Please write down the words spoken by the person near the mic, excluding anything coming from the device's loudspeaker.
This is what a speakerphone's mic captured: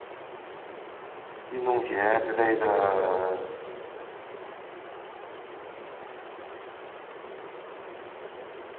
运动鞋之类的

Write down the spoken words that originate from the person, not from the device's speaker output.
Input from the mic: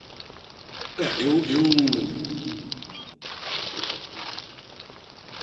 É, eu, eu,

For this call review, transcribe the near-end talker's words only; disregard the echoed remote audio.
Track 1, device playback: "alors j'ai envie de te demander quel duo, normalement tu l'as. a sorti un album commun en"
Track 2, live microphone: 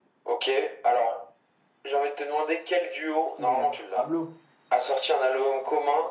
Pierre. Pablo?

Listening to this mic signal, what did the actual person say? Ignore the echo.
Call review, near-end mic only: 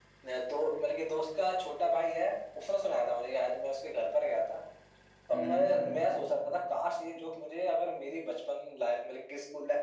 हम्म हम्म,

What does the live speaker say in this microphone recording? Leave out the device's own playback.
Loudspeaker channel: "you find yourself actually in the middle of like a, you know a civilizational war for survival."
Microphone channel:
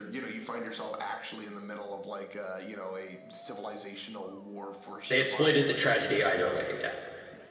They exploited the tragedy either way, yeah.

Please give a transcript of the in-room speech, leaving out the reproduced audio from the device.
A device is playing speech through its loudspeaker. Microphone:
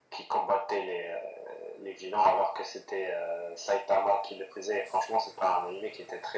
none

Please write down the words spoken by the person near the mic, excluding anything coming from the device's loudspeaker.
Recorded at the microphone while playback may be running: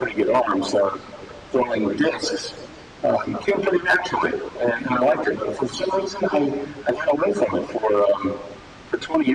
none

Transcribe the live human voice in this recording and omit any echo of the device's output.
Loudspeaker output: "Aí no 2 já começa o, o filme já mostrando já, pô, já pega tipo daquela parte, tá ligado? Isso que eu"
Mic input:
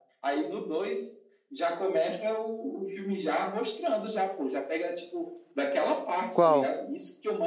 Qual?

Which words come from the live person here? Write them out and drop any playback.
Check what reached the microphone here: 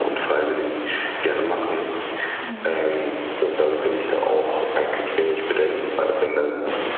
Mhm.

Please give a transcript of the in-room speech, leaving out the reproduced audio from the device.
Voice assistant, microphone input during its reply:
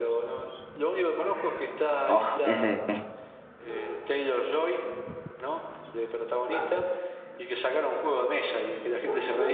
Oh, ese.

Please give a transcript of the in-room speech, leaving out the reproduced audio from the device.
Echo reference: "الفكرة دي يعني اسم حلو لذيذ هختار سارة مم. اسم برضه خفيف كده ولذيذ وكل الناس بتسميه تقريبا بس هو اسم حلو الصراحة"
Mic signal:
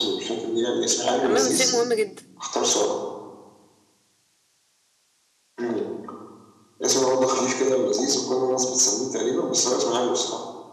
عامه ده شيء مهم جدا

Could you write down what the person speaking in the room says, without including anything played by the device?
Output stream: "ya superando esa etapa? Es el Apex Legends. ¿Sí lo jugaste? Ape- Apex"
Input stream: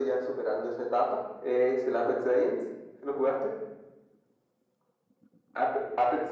none

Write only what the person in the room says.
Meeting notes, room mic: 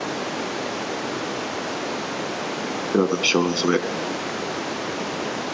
C'est la même chose, oui.

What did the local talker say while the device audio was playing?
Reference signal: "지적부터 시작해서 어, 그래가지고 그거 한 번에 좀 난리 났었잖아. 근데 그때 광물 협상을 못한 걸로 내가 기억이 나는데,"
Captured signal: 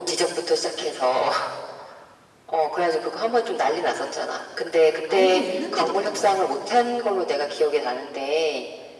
알고 있는데도 그랬던 거야.

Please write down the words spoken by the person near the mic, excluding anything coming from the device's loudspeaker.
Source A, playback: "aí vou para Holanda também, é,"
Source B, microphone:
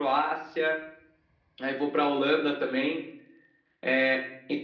none

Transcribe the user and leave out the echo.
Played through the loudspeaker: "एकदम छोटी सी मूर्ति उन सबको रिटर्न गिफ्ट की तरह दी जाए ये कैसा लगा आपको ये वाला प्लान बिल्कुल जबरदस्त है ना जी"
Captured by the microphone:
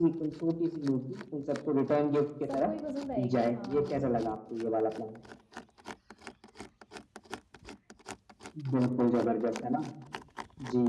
सबको ही पसंद आएगी हाँ

